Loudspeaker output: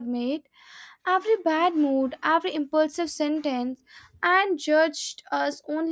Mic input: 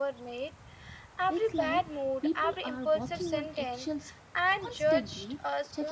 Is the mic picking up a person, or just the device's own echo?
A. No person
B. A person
B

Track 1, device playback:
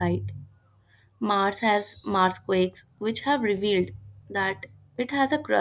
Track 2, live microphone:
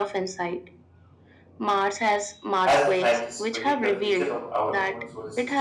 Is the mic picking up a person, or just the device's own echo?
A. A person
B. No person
A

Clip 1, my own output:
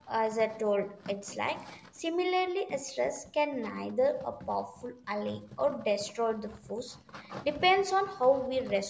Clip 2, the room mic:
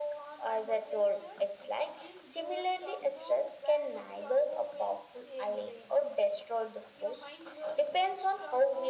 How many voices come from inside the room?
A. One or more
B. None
A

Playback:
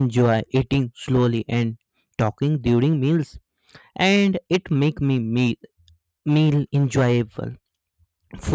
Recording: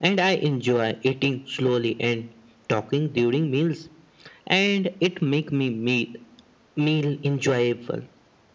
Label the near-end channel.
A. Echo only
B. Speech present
A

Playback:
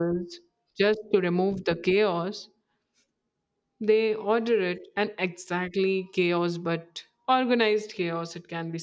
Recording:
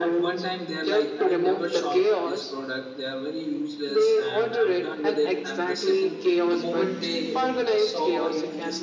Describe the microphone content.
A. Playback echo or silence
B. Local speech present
B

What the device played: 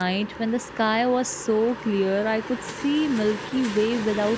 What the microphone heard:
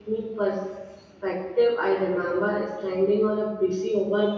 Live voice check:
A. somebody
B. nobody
A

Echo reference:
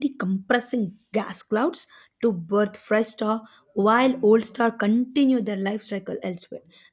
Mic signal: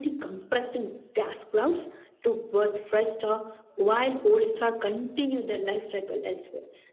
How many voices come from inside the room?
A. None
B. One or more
A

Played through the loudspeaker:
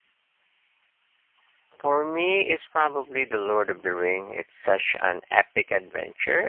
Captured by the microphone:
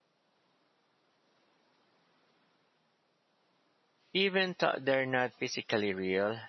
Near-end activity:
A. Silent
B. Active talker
B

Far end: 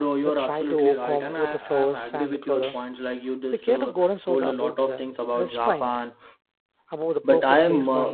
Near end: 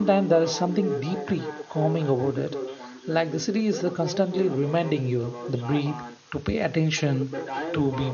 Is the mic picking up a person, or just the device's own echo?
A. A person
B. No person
A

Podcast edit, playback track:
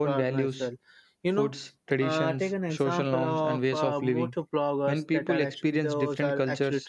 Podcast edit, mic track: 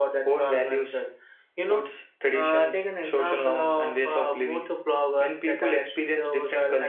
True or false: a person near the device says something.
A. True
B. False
B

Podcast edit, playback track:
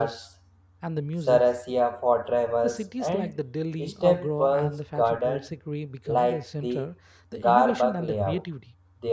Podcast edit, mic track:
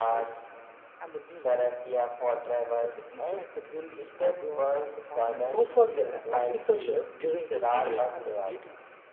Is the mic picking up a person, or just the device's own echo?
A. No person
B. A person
B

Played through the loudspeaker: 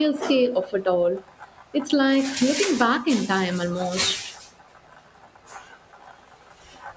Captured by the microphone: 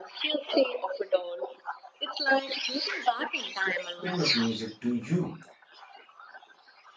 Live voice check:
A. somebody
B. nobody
A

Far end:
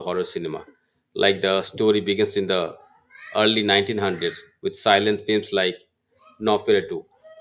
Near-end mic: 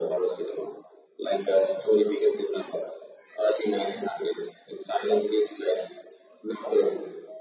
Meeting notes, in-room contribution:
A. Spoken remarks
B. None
B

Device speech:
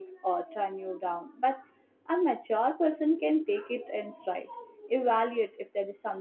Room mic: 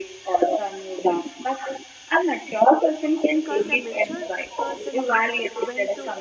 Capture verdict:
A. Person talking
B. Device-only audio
A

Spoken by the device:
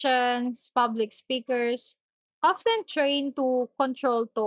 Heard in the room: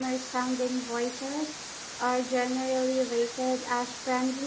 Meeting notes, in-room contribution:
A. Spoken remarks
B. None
A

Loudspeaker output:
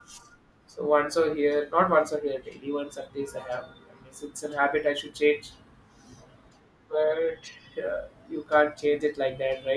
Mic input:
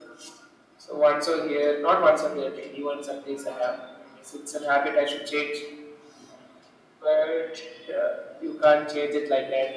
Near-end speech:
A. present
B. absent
B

